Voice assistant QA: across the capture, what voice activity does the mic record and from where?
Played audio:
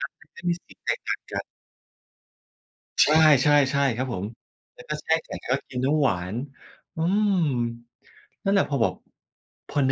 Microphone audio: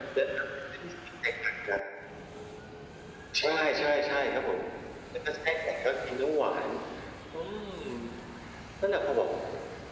echo only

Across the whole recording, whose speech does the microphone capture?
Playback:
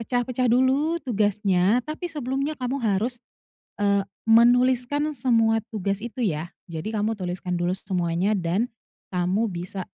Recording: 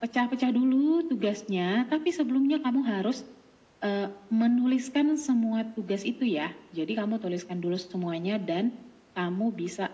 echo only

